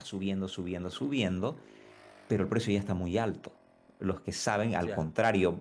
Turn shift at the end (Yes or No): No